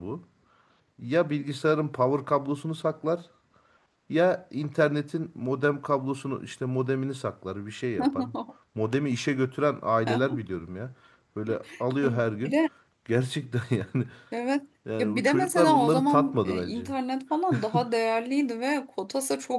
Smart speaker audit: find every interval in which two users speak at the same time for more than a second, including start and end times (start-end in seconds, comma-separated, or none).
15.0-16.9